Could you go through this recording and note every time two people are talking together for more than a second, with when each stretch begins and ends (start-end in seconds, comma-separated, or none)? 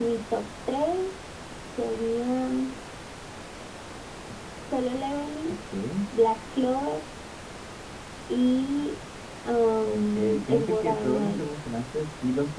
9.9-11.4